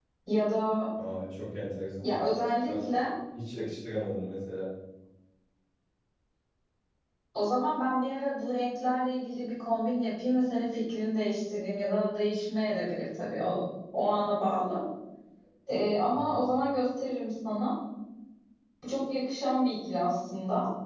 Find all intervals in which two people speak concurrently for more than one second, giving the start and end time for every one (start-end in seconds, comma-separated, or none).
none